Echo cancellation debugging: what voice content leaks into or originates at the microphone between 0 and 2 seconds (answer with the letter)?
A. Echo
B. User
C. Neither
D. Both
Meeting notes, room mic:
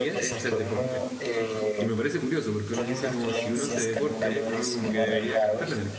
D